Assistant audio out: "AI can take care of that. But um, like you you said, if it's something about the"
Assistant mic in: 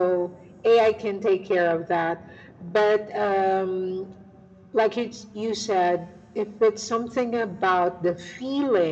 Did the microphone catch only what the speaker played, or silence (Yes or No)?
Yes